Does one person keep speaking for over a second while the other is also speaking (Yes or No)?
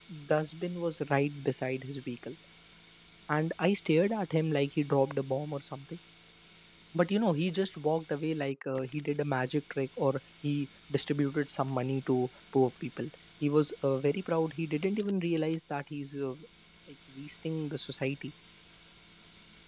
No